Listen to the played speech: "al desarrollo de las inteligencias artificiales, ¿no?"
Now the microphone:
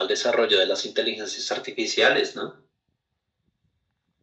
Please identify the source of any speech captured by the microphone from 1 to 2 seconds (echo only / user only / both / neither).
echo only